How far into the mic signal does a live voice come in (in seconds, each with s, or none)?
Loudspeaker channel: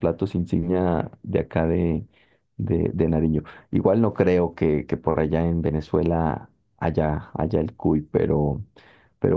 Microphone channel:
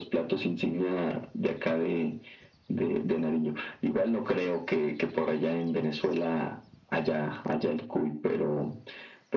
none